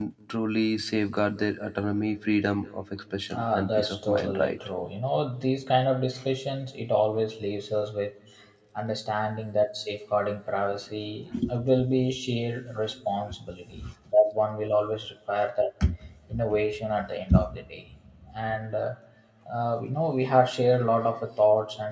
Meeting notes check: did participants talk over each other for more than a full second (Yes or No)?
Yes